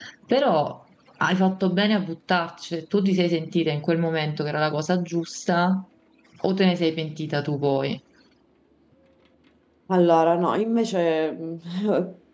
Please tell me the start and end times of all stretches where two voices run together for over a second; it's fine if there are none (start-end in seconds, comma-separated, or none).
none